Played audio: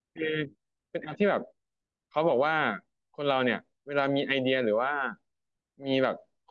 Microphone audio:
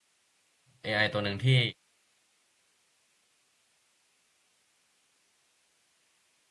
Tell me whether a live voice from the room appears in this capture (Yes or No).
Yes